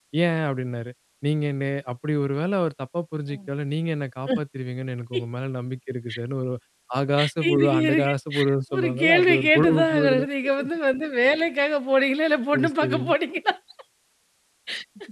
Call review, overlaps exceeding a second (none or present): present